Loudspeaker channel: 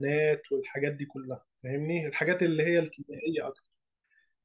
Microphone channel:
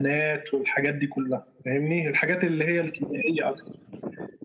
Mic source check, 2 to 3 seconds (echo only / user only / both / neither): echo only